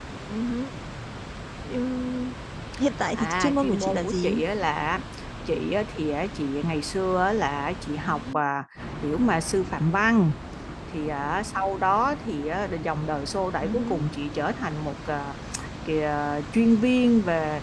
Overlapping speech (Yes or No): Yes